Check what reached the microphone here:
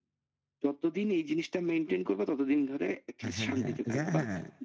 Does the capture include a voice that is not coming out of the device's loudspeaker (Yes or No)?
Yes